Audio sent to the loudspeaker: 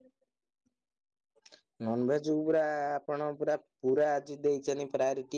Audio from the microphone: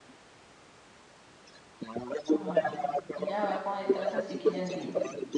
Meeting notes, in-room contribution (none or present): present